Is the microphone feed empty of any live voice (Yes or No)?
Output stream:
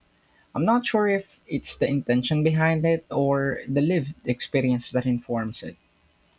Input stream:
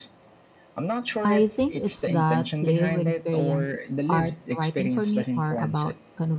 No